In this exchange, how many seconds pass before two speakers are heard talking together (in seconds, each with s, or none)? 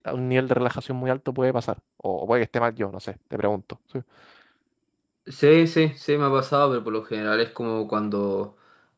none